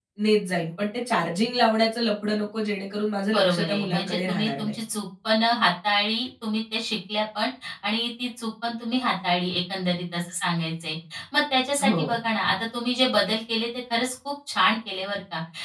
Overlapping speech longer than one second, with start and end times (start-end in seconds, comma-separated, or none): 3.3-4.7